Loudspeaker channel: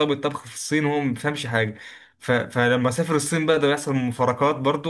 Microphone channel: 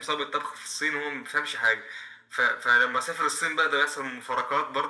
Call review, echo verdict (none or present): present